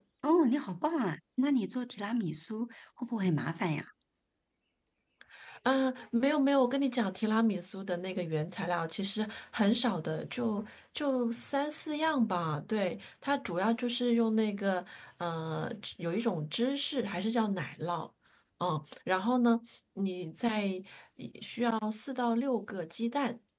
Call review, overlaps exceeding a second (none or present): none